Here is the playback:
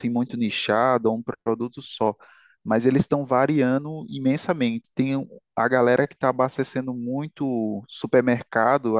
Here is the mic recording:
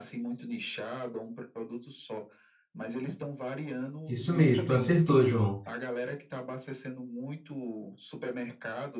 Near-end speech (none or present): present